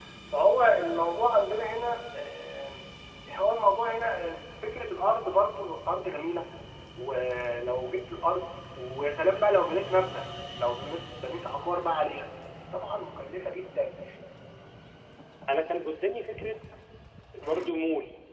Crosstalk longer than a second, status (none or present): none